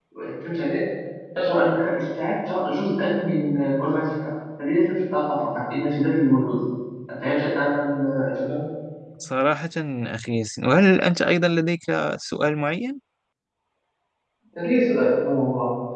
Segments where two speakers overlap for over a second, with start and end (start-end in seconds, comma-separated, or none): none